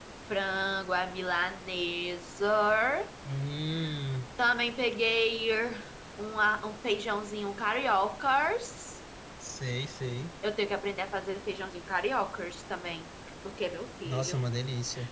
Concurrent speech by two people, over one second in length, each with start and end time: none

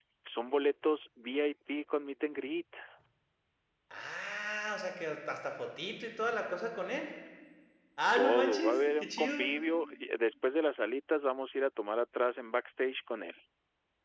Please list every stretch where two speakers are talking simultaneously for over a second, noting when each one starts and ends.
8.2-9.5

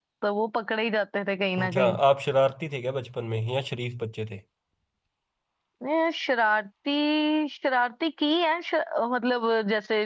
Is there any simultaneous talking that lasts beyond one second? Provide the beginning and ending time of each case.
none

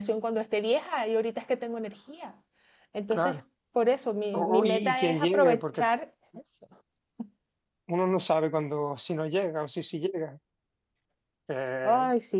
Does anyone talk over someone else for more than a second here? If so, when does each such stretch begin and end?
4.3-5.9

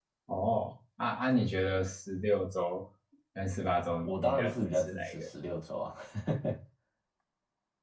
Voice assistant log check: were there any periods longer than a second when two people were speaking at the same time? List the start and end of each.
4.0-5.3

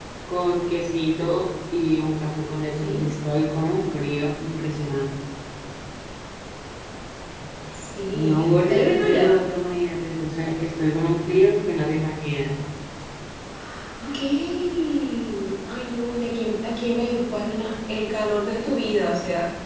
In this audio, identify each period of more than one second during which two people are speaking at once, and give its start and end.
8.1-9.4

